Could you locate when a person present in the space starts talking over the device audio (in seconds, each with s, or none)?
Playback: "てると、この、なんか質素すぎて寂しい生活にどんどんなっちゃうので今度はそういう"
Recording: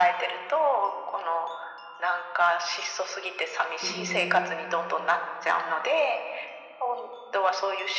3.8 s